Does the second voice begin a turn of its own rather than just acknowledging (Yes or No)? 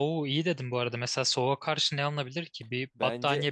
Yes